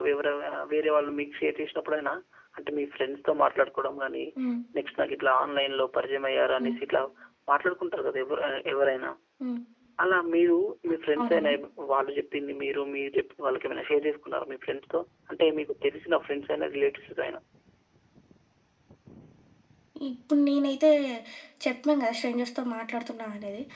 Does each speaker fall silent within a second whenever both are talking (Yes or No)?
Yes